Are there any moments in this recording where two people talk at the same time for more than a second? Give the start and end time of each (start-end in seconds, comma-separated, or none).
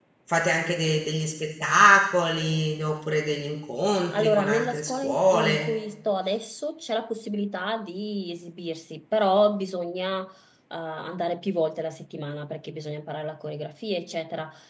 4.1-5.7